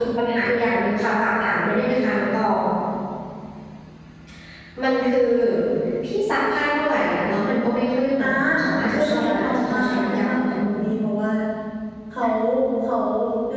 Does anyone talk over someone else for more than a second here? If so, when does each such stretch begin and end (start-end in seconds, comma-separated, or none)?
8.9-10.8